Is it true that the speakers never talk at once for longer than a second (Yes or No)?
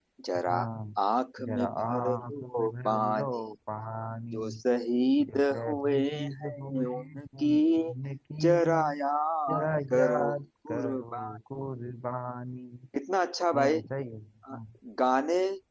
No